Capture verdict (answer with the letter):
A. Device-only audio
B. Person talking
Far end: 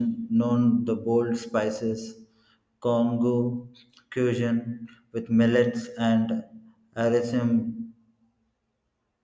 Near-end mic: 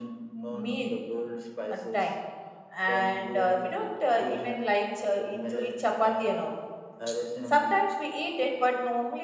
B